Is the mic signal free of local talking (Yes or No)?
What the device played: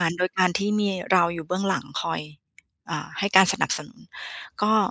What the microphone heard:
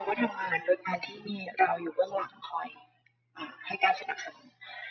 Yes